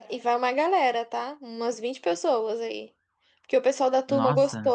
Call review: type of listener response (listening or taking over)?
listening